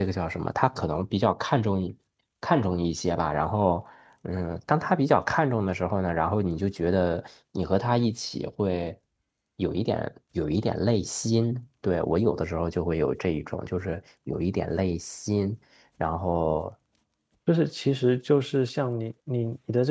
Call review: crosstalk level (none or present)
none